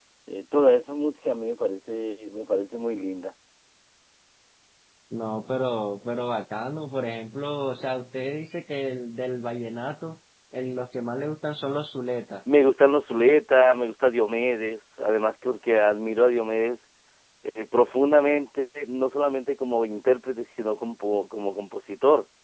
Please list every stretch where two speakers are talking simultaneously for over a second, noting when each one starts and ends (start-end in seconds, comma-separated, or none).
none